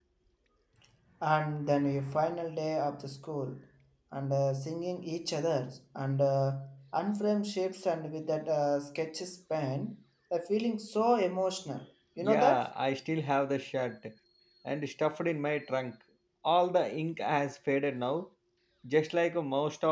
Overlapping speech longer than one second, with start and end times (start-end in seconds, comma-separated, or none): none